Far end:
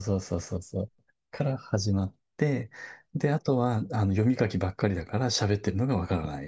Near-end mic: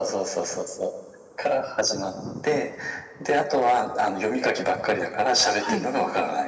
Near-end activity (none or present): present